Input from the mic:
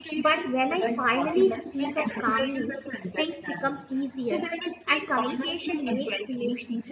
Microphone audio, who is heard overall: both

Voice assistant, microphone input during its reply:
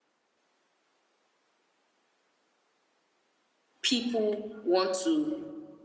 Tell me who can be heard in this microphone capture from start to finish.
user only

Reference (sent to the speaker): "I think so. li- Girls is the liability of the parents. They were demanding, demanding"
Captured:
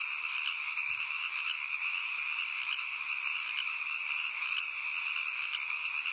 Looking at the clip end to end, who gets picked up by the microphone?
neither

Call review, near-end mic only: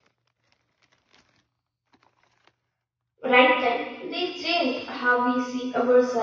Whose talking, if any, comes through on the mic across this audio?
user only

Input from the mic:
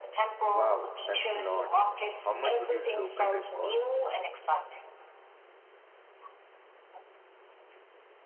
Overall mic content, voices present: both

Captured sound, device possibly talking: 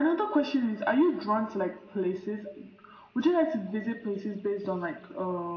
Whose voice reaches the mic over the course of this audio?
echo only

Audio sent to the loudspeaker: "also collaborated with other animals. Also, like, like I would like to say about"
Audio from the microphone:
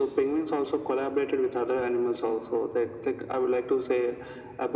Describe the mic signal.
echo only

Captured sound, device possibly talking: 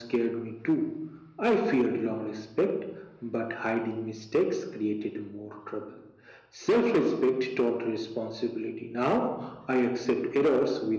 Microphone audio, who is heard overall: echo only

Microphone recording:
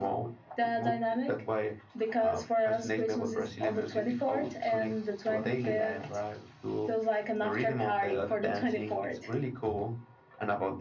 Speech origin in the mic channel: echo only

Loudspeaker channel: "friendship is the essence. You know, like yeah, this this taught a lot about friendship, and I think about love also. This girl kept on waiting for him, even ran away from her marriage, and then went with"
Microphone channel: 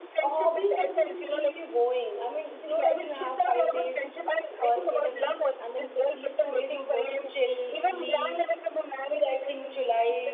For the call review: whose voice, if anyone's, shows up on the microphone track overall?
both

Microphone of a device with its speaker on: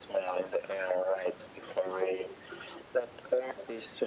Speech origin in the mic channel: echo only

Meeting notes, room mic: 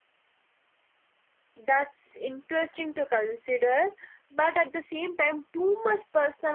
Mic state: user only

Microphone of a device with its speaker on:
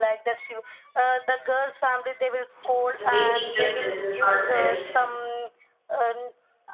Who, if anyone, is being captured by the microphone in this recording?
both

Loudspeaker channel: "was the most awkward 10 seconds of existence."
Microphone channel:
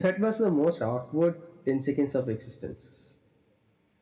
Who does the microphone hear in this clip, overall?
echo only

